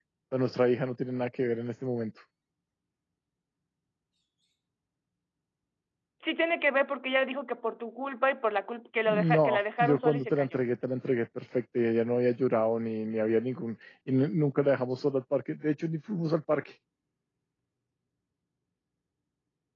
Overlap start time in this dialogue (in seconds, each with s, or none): 9.1 s